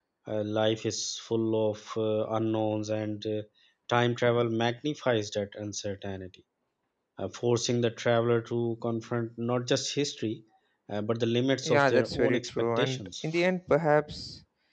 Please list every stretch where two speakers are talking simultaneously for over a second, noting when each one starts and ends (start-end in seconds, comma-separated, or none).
11.6-13.2